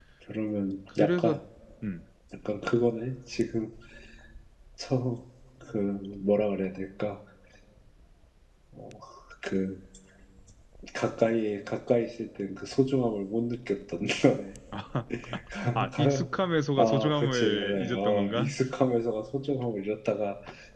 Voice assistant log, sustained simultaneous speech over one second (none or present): present